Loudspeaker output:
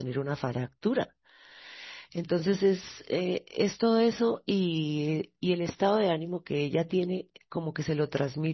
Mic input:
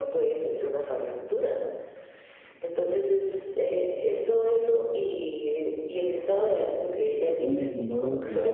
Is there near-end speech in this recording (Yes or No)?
Yes